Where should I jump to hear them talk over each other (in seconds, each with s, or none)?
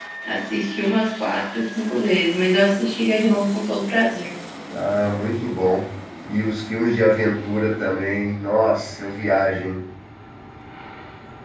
none